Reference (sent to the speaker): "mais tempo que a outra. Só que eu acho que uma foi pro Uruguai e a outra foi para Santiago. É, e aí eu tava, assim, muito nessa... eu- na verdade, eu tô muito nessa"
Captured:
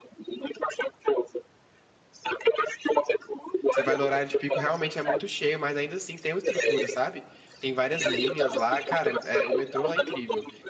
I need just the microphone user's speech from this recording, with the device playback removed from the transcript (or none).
Você vai no horário de pico, realmente é muito cheio, mas ainda assim tem uma estrutura, sabe? Tem várias linhas lá, cara, é, o metrô lá é incrível.